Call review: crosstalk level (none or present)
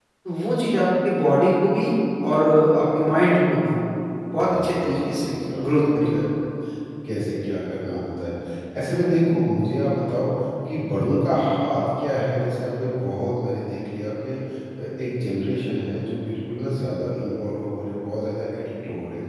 present